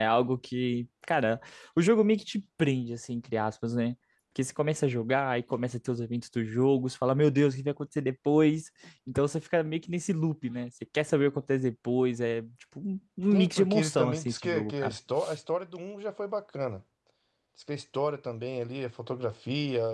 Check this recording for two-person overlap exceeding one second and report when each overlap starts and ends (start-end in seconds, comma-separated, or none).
13.3-15.0